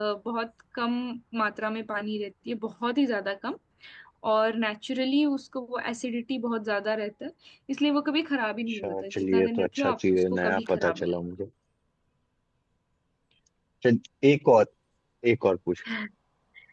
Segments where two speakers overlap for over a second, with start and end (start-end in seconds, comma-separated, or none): 8.7-11.1